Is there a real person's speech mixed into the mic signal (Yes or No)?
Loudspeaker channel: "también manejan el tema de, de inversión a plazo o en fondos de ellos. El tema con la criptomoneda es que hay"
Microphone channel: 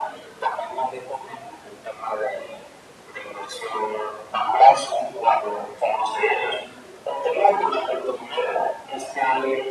No